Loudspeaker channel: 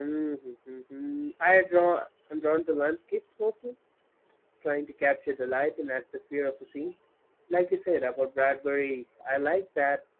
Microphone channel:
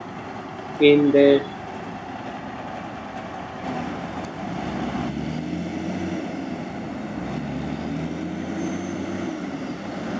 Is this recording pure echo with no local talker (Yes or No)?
No